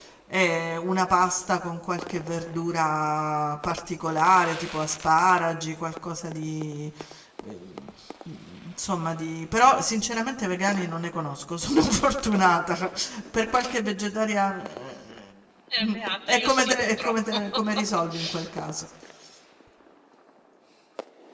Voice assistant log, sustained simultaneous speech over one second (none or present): present